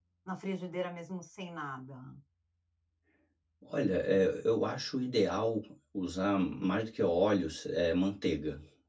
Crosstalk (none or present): none